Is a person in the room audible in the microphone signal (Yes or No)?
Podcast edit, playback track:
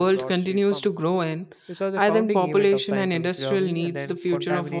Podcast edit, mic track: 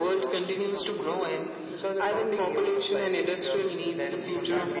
No